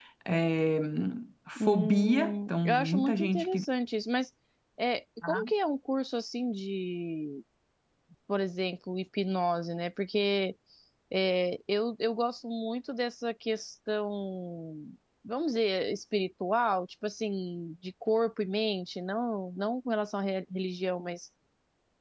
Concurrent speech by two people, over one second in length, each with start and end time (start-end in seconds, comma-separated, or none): 1.7-3.6